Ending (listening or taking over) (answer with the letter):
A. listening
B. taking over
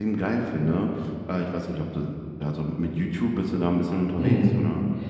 B